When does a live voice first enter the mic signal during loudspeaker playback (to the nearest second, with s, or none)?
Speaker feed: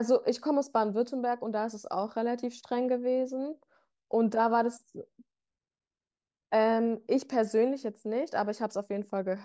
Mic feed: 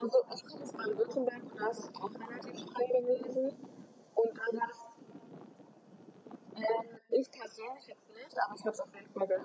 none